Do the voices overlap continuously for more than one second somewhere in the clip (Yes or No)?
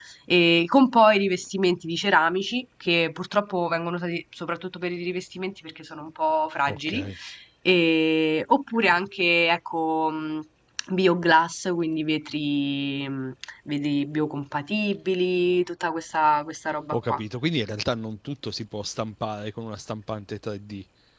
No